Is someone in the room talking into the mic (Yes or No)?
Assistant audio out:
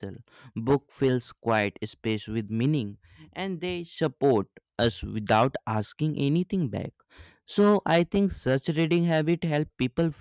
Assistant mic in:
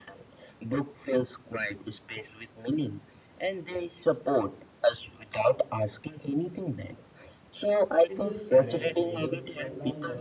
Yes